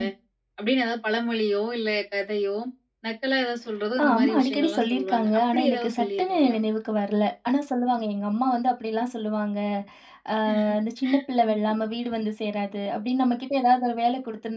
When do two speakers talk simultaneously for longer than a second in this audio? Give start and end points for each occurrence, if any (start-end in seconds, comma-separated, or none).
4.0-6.6